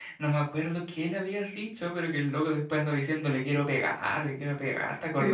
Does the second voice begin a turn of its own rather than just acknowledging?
Yes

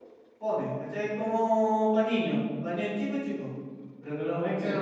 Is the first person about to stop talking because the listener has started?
No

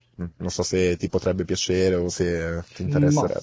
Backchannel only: No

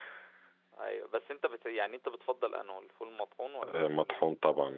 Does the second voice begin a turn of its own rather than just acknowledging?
Yes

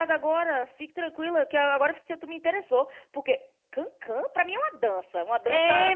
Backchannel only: No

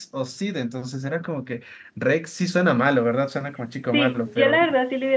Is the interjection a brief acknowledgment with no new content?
No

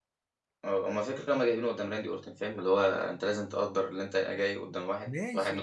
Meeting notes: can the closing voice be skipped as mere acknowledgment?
No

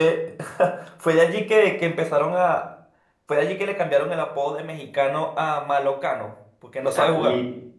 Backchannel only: No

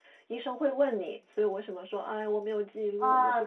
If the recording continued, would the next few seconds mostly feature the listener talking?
Yes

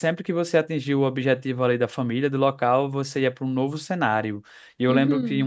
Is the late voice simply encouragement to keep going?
Yes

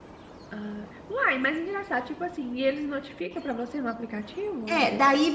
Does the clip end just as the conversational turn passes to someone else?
Yes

